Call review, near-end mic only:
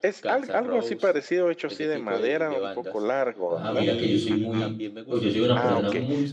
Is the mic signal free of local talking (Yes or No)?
No